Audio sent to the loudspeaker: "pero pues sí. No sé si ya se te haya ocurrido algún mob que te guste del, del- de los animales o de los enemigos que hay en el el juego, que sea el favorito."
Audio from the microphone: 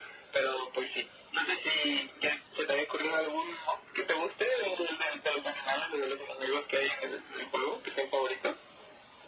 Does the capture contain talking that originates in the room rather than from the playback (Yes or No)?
No